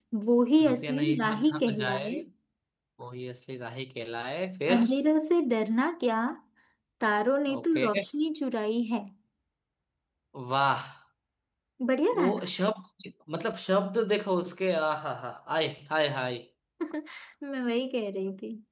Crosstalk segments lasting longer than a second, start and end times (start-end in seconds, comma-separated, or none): 0.7-2.1